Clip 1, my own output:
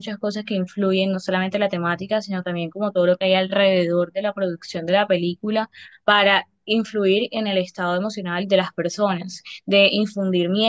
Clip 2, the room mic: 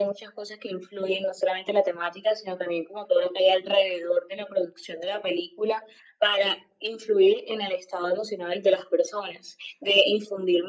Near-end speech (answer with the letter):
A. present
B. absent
B